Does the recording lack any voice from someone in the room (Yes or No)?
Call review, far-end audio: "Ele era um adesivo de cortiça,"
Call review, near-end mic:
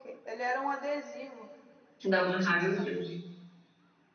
No